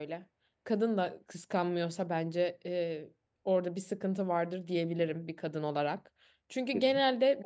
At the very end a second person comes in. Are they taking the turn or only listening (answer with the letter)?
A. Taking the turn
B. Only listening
B